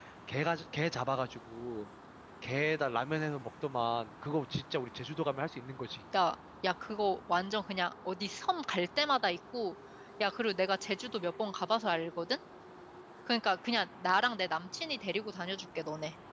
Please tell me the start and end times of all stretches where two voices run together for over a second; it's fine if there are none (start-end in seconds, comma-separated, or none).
none